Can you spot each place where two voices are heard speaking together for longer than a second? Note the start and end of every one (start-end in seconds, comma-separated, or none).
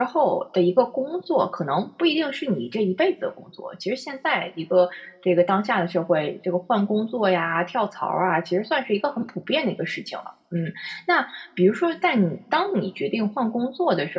none